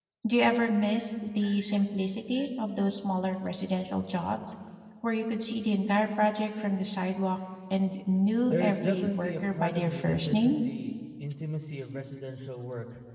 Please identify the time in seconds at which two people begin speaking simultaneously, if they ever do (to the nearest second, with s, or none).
8 s